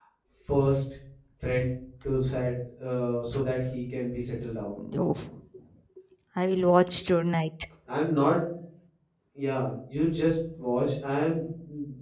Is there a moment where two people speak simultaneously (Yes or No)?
No